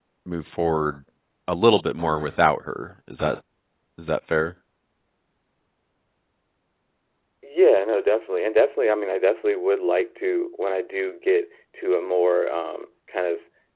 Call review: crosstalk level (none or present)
none